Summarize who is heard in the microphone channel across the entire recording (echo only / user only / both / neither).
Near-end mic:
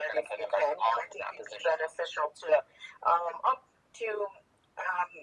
echo only